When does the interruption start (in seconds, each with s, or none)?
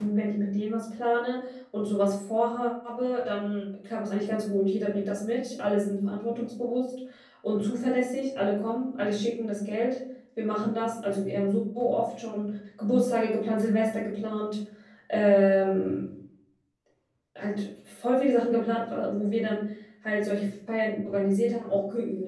none